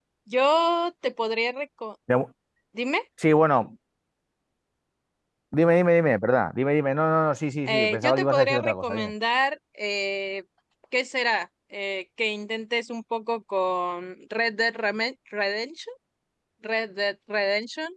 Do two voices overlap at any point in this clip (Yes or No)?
Yes